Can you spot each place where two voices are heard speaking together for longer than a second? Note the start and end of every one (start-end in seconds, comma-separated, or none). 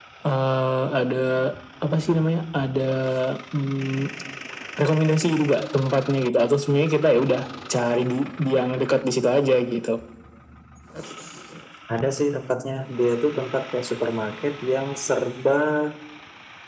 none